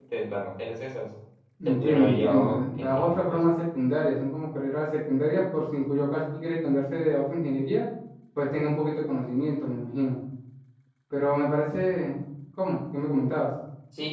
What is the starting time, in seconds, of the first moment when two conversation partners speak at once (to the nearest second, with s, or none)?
2 s